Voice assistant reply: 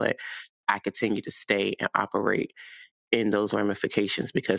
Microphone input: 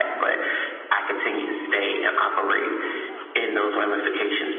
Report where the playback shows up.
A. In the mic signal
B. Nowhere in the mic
A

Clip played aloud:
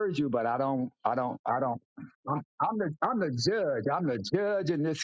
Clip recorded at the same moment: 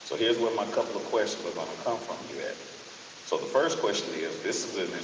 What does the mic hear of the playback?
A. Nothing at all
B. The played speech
A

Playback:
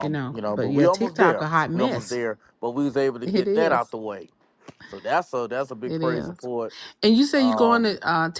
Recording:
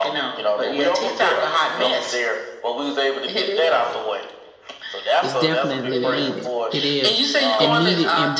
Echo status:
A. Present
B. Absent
A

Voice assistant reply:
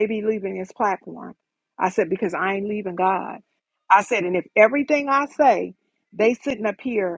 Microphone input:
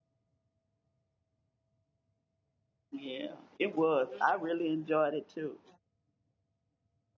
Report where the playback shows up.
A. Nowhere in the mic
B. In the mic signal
A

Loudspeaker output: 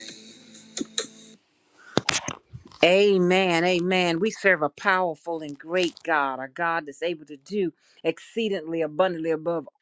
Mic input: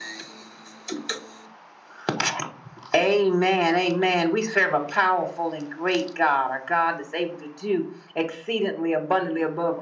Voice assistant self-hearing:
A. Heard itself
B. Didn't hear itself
A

